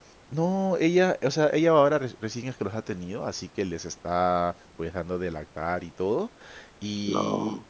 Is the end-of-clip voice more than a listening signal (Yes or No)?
No